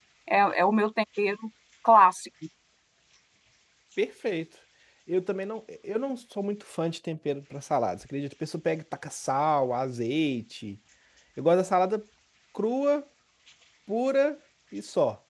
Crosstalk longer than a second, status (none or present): none